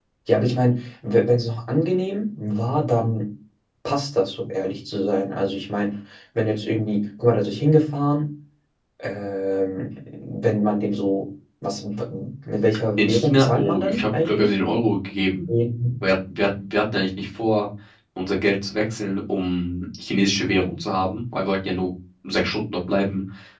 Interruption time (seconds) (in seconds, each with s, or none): 13.0 s